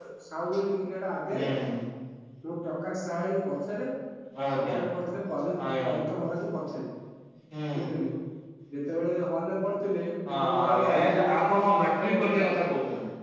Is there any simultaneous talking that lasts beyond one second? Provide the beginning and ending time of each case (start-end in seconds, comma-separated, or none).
10.4-12.5